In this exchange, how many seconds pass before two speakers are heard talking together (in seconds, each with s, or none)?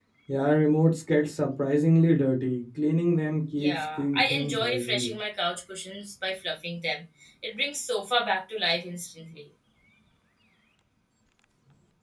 3.6 s